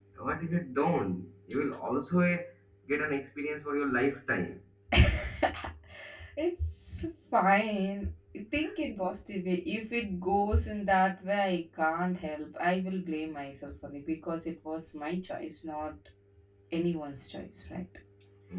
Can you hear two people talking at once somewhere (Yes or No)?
No